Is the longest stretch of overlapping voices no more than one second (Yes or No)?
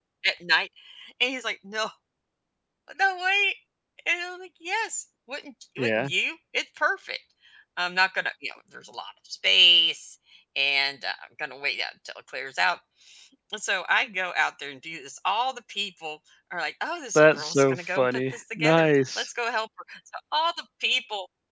No